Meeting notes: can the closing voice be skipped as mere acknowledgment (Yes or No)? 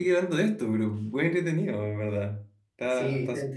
No